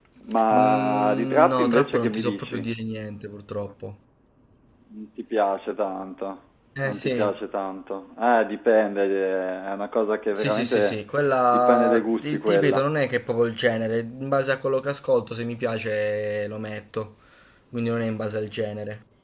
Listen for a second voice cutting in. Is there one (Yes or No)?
Yes